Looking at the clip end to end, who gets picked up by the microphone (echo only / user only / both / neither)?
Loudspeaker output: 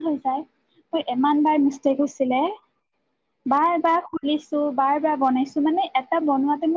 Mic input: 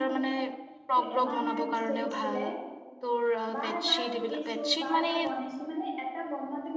both